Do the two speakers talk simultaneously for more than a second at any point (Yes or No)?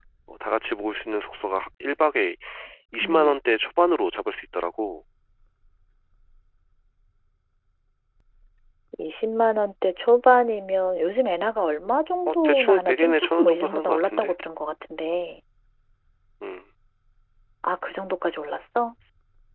Yes